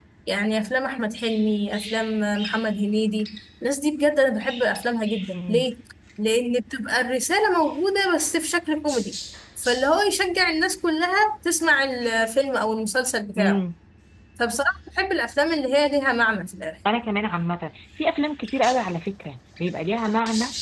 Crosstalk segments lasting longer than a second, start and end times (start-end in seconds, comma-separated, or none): none